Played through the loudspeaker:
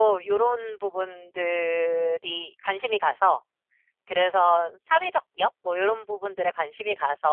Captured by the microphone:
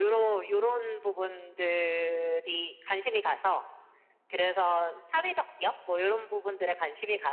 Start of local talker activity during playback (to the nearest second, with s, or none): none